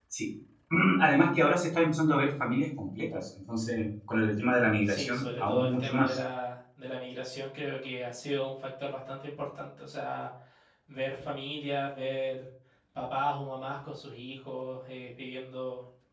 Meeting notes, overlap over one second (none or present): present